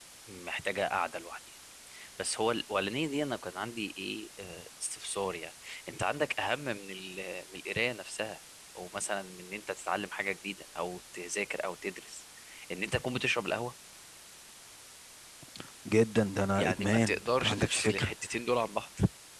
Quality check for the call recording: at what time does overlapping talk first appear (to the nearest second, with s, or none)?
17 s